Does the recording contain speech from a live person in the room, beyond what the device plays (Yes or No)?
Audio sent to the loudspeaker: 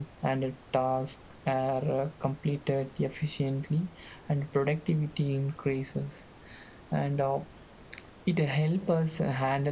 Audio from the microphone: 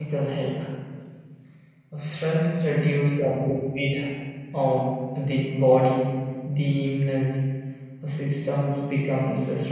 Yes